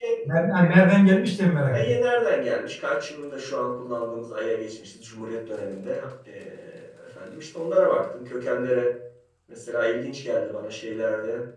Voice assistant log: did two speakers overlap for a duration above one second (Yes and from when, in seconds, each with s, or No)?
No